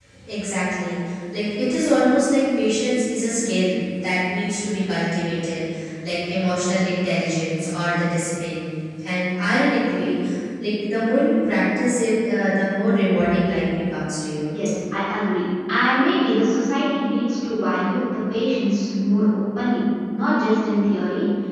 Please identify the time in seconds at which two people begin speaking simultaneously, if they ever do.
none

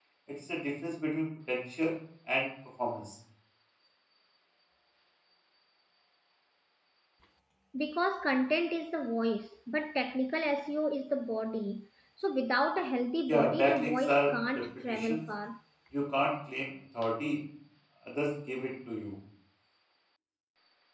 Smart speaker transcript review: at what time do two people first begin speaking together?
13 s

